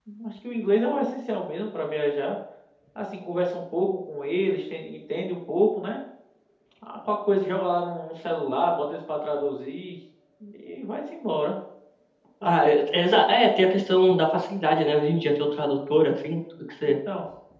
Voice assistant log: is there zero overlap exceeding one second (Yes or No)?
Yes